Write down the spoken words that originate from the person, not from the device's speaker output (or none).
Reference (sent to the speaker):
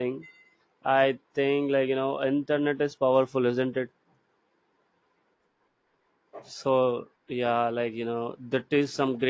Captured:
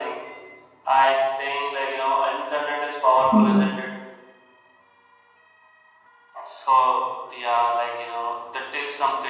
mhm,